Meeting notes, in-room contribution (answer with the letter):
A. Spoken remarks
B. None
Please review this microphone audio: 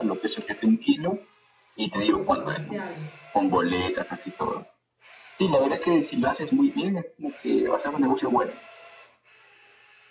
A